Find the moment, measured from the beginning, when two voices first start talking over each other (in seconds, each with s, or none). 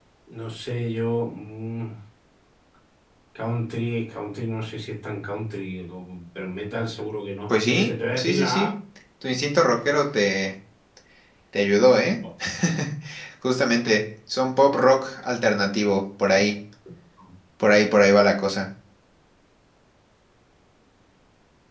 7.5 s